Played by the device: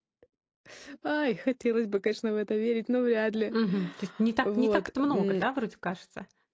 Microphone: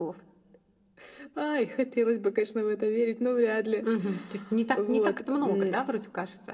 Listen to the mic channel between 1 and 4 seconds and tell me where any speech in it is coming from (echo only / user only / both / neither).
echo only